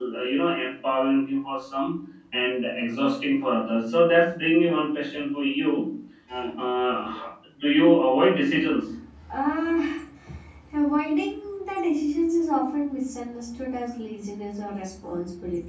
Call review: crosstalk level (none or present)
none